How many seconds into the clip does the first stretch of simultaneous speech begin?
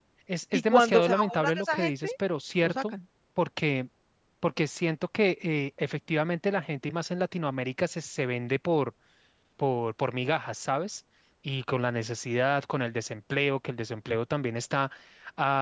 0.5 s

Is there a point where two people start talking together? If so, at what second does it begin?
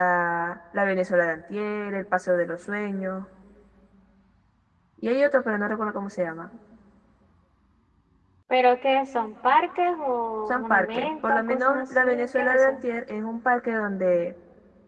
10.5 s

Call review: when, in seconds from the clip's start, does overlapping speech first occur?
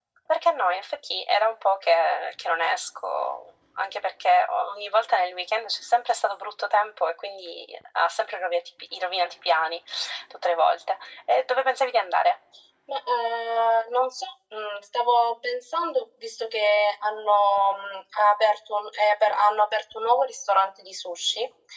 none

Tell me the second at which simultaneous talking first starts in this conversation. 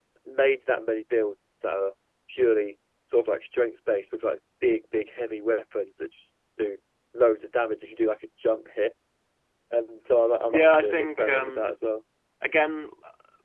10.5 s

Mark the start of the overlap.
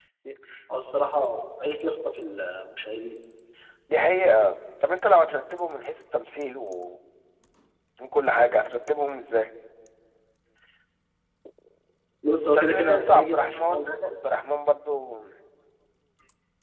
12.5 s

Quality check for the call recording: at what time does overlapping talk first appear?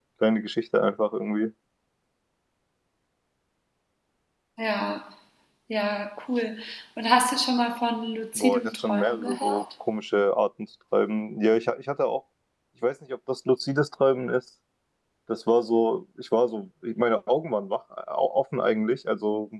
8.4 s

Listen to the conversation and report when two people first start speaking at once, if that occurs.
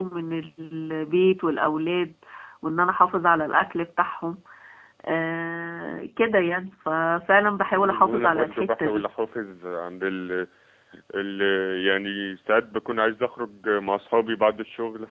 7.6 s

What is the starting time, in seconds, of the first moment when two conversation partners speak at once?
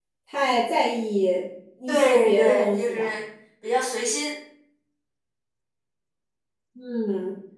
1.9 s

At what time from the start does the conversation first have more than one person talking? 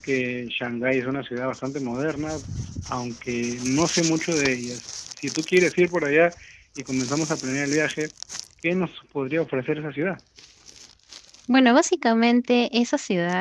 none

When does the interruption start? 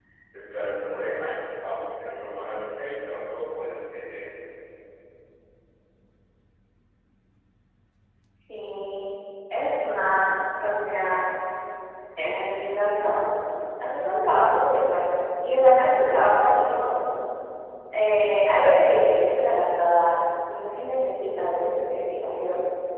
none

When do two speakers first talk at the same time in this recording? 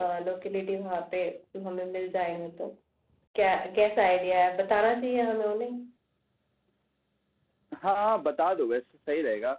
none

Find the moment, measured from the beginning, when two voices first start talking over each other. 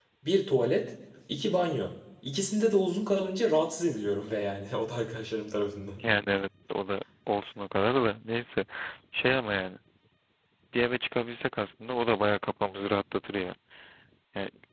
none

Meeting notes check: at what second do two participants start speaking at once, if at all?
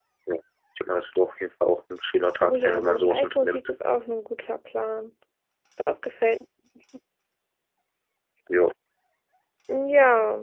2.4 s

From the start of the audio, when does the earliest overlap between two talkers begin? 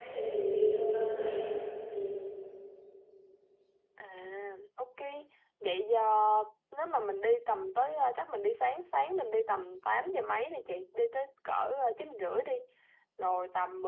none

